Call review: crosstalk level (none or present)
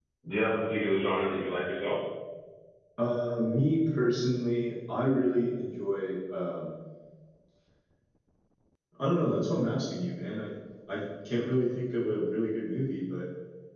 none